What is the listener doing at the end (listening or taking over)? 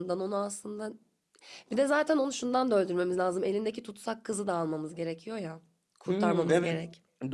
taking over